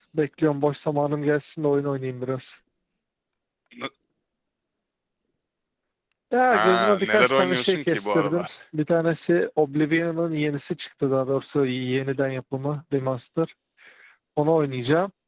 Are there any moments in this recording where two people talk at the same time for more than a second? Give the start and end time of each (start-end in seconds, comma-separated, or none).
6.5-8.5